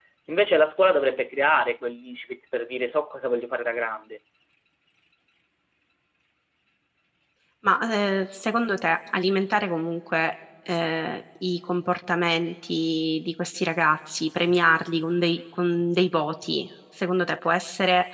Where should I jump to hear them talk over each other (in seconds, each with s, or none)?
none